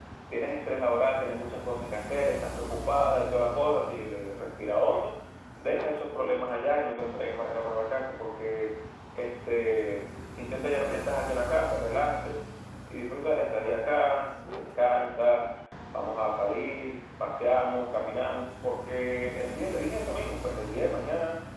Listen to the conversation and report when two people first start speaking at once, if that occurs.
none

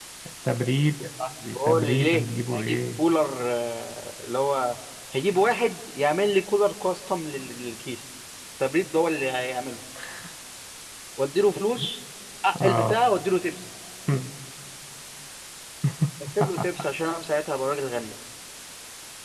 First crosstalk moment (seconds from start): 2 s

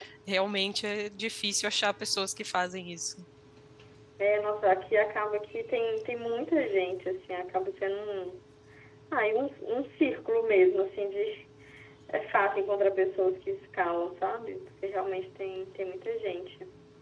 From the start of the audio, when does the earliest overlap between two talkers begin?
none

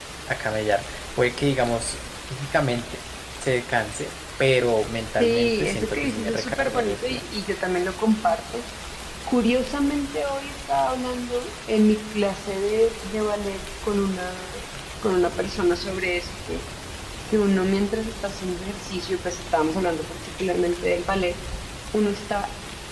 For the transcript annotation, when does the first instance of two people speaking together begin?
5 s

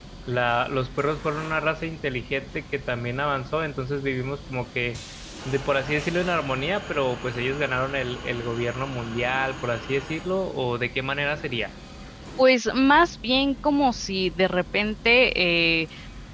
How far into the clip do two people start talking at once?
none

